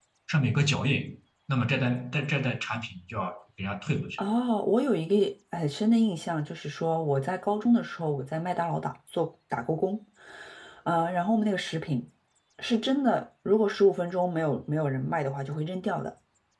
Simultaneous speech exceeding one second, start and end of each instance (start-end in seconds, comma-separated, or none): none